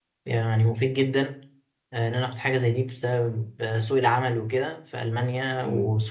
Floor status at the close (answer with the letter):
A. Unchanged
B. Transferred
A